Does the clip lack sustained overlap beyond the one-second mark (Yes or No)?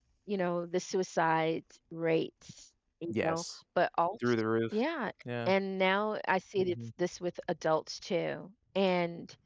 Yes